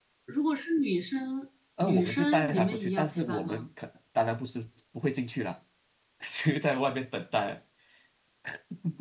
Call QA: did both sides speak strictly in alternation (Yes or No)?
No